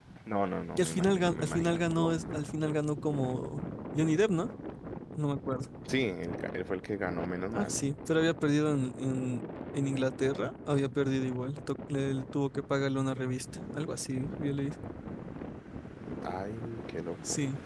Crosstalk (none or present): present